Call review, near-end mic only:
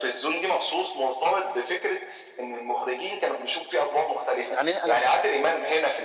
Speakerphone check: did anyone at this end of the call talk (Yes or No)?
Yes